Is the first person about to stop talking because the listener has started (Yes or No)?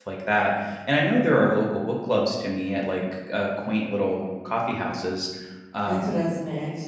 Yes